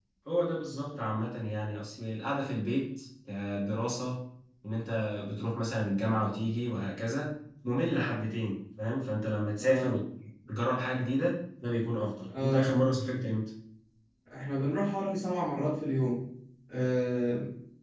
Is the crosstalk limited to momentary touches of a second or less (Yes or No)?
Yes